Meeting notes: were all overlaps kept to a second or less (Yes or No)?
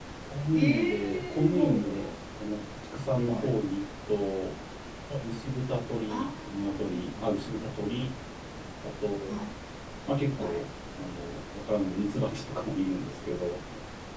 No